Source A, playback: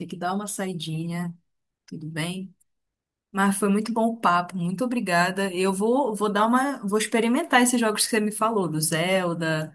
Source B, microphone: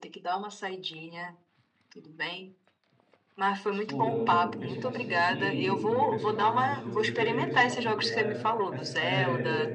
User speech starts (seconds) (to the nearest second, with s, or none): 4 s